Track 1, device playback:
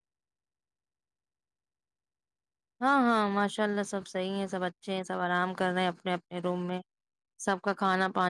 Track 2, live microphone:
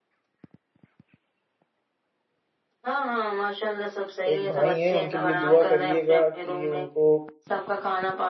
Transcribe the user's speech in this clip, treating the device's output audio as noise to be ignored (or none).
ایک بھائی ہیں ان کے لیے دعا کریے گا کہ ان کو